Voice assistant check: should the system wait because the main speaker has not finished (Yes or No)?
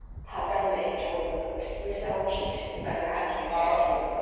No